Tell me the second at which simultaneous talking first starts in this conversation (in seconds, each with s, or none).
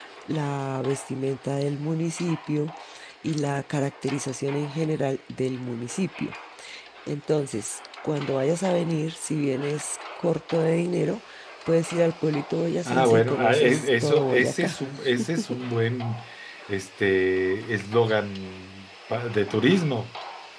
12.8 s